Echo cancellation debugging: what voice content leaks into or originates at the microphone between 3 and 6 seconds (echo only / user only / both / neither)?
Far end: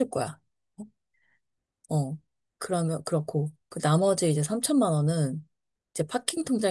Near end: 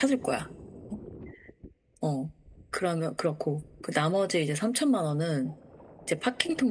echo only